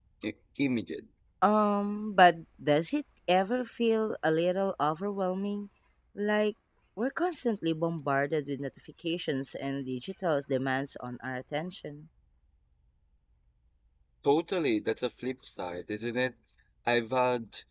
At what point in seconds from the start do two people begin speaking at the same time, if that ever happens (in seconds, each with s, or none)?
none